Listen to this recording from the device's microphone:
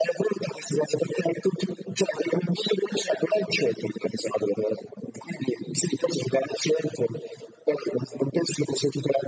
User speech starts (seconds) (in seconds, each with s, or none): none